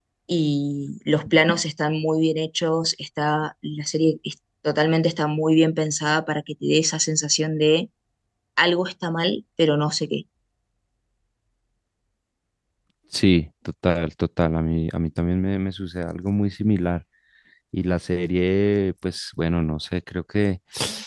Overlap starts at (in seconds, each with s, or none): none